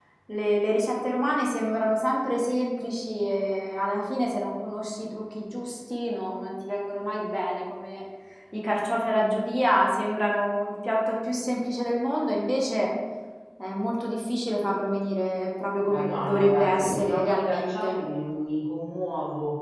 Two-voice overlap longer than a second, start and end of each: 15.9-18.0

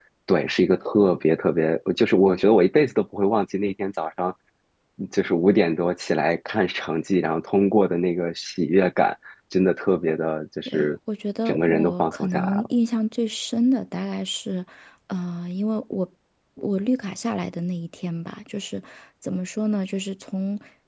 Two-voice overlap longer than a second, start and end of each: 11.4-12.7

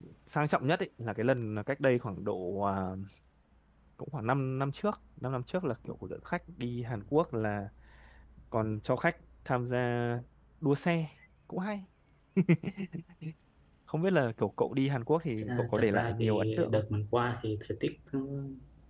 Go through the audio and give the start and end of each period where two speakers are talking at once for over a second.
15.4-16.8

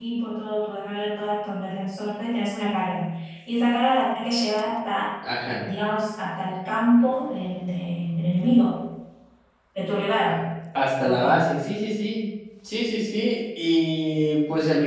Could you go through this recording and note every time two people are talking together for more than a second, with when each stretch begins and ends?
none

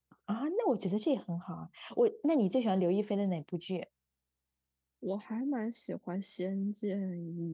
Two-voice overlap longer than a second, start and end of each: none

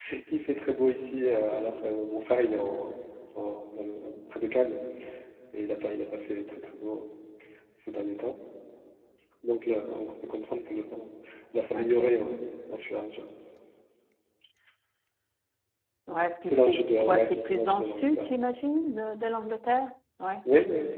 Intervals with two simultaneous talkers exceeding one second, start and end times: 16.4-18.3

